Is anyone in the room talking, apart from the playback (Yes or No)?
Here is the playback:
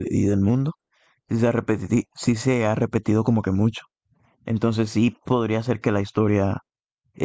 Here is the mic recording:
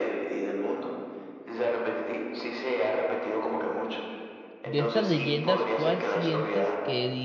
Yes